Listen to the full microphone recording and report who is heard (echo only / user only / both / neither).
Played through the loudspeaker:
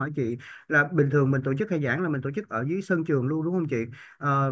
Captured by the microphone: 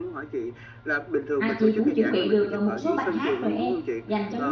both